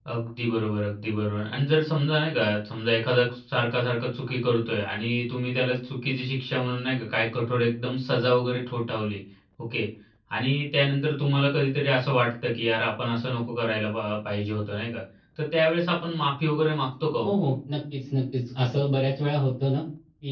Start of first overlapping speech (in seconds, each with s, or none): none